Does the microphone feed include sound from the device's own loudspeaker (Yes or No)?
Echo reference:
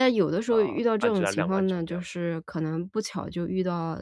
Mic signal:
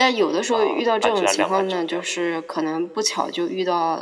Yes